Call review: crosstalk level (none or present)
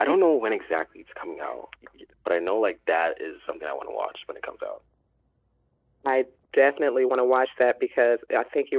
none